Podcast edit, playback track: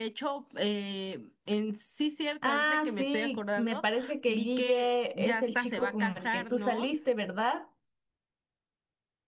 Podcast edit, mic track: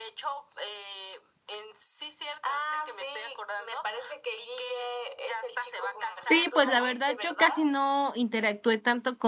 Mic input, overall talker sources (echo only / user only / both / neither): both